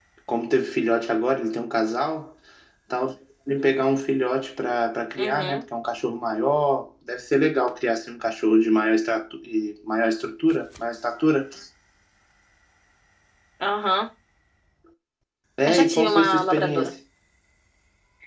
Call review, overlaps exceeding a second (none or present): present